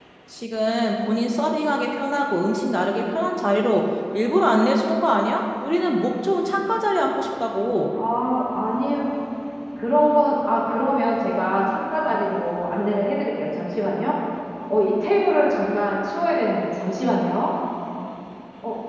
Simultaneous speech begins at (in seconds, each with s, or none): none